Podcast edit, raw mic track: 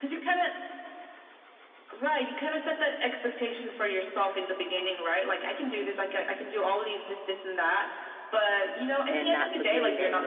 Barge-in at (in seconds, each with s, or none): 9.1 s